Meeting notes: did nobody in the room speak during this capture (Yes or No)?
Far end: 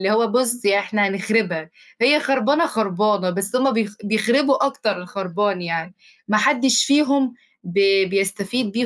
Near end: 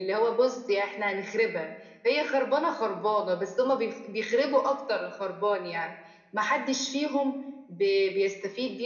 Yes